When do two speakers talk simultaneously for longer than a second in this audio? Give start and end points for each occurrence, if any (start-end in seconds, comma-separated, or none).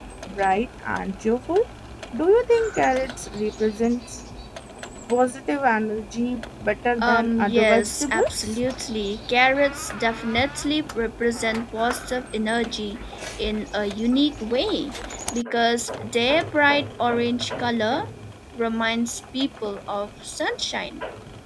7.0-8.6